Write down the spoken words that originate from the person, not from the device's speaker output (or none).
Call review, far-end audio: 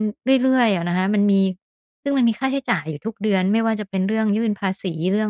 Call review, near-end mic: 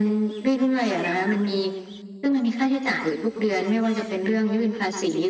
none